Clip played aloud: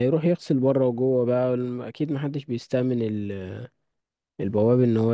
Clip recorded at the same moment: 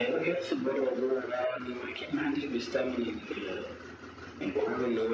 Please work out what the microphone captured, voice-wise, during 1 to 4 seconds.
echo only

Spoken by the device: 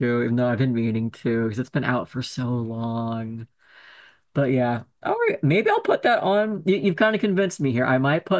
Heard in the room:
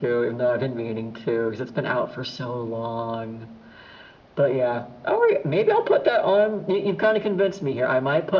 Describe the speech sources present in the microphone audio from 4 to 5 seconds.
echo only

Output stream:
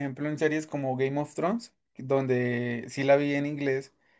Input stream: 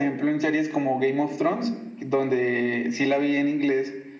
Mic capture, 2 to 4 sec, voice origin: echo only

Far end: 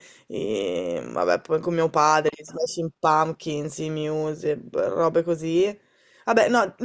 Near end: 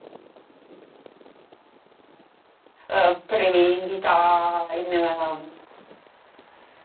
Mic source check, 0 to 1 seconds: neither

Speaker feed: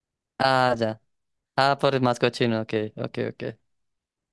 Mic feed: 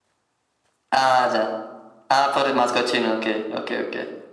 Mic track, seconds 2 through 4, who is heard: echo only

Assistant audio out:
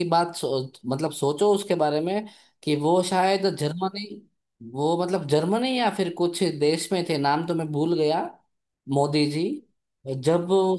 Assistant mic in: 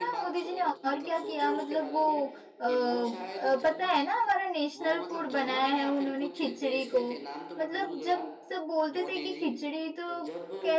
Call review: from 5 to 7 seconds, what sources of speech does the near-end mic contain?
both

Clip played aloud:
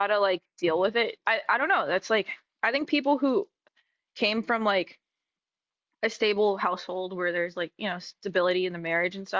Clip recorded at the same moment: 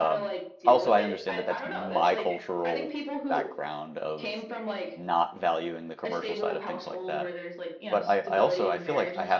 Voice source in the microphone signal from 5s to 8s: both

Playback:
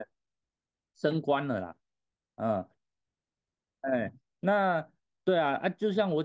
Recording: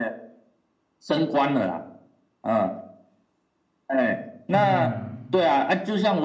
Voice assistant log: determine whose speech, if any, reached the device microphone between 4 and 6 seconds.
both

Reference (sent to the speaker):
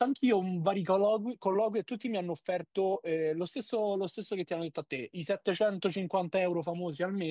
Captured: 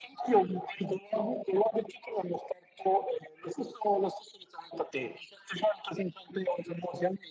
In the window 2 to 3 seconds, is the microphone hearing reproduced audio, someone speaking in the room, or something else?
echo only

